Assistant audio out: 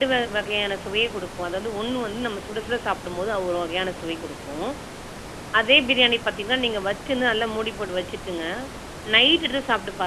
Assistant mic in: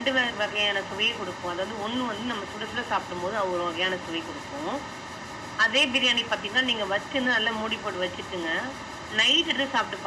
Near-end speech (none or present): none